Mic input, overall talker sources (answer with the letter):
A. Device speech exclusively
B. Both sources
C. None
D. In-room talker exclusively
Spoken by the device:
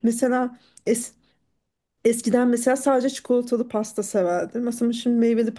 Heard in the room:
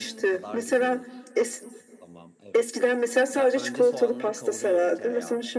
B